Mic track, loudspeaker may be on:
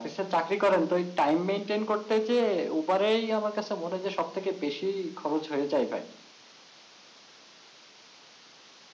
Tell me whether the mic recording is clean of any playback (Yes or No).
No